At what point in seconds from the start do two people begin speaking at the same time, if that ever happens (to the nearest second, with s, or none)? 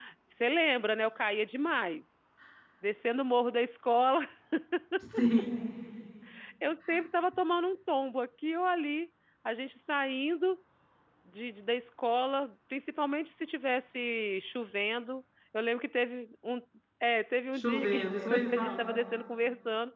18 s